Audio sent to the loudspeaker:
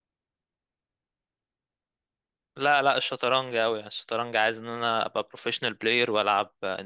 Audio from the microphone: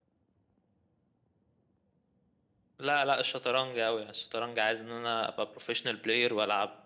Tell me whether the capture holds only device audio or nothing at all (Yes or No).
Yes